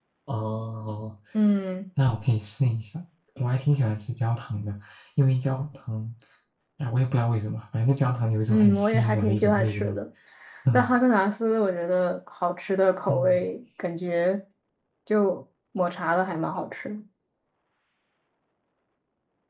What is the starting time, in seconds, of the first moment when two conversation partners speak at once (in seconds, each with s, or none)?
8.5 s